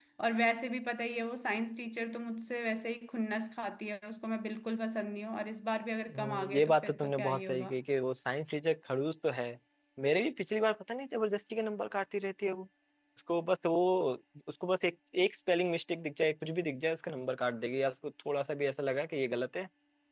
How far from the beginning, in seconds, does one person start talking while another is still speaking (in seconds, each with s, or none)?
6.1 s